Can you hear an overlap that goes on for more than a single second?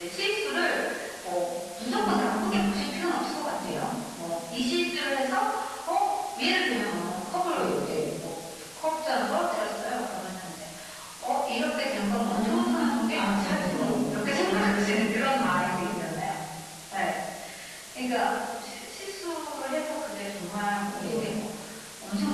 Yes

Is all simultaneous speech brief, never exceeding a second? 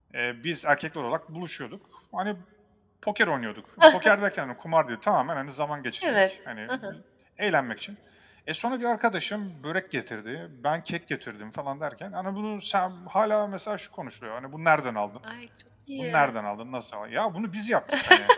Yes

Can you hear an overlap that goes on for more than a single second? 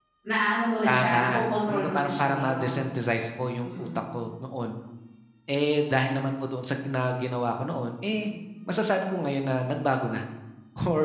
Yes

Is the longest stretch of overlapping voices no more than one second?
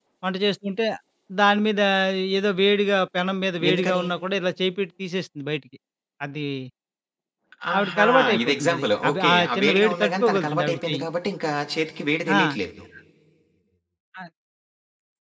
No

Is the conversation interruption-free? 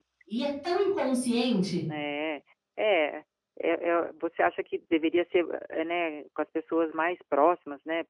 Yes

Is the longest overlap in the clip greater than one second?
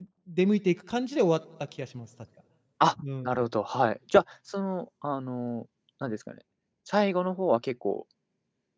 No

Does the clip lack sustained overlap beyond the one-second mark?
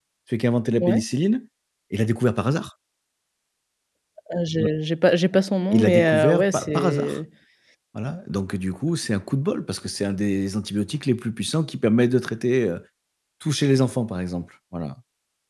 No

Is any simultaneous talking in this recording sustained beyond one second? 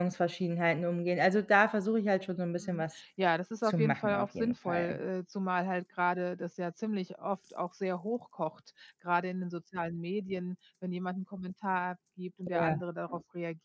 Yes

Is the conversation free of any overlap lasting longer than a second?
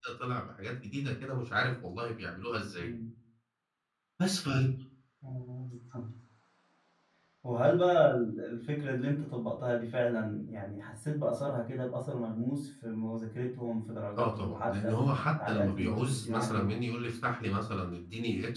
No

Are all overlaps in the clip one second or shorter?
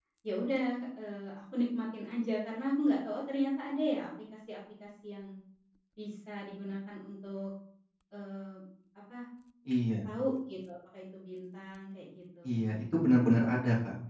Yes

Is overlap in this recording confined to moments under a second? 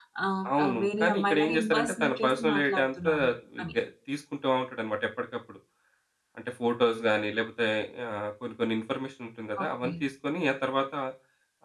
No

